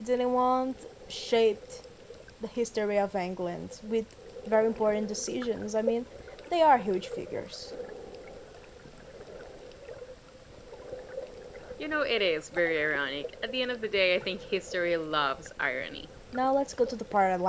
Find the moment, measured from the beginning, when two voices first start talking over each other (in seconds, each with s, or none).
none